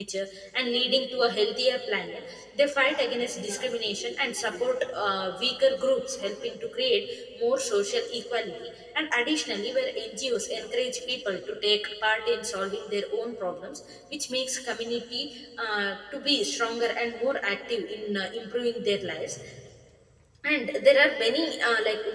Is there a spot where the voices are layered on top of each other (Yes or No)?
No